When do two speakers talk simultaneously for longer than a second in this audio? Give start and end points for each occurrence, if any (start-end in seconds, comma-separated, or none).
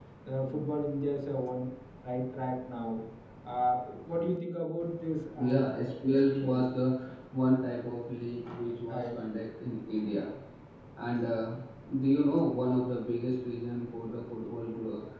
5.4-6.6